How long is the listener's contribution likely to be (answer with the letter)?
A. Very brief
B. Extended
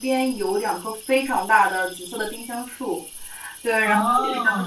A